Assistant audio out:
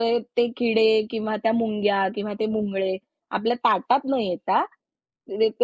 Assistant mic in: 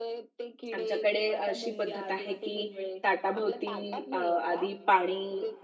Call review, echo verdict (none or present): present